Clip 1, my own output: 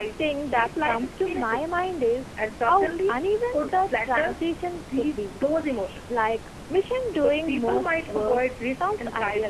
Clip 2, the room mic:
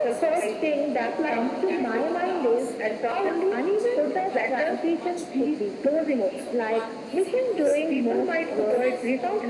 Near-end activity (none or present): present